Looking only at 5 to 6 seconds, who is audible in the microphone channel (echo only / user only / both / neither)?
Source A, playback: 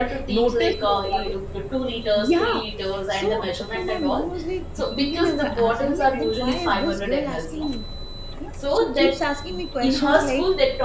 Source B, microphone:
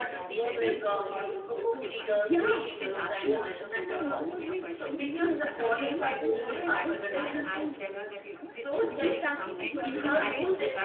both